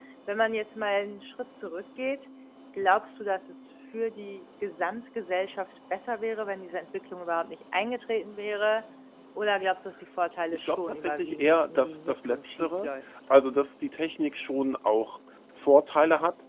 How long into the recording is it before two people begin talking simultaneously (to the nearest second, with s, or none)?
11 s